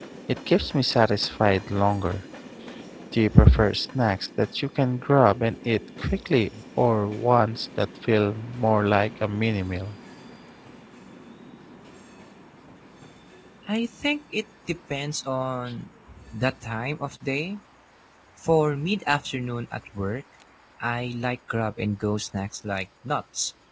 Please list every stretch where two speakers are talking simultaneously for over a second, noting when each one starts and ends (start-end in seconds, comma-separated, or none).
none